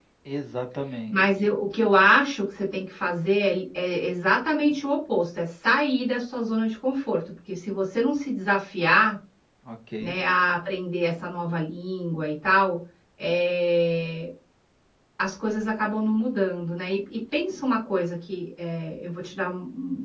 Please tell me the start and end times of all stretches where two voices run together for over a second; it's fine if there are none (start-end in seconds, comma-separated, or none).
none